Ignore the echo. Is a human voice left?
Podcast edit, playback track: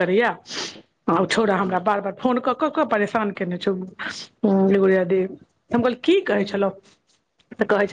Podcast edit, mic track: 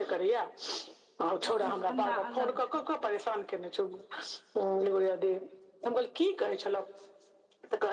Yes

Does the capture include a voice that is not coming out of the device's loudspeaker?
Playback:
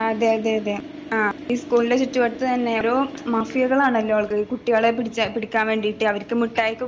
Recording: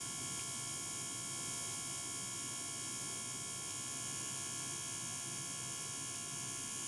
No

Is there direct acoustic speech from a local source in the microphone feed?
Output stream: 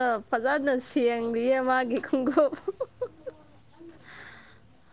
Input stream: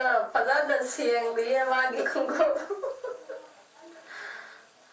No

